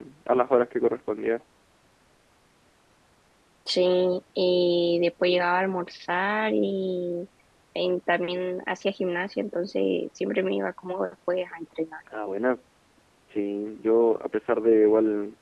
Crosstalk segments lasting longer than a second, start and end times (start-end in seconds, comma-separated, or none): none